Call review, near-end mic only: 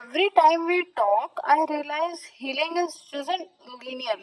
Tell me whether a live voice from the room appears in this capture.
No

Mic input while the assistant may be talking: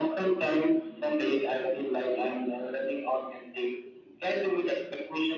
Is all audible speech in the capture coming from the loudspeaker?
Yes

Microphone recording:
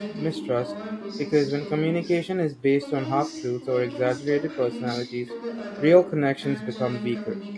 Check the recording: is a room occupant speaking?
Yes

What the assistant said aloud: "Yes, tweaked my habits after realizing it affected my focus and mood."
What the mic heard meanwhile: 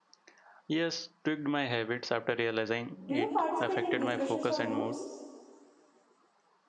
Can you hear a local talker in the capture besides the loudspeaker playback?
Yes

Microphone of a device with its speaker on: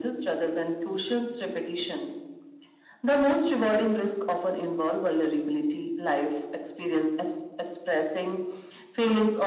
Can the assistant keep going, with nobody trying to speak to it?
Yes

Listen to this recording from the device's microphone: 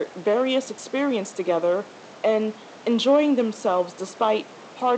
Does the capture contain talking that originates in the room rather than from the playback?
No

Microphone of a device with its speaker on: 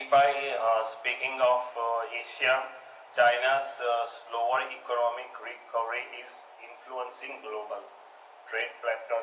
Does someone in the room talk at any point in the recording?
No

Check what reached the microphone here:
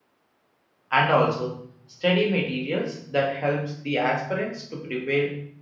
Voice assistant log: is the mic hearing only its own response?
No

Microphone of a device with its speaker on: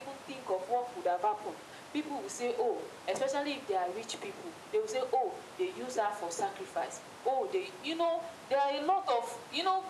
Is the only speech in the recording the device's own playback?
Yes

